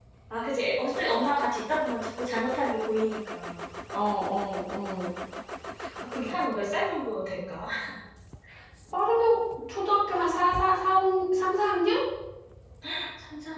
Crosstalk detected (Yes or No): No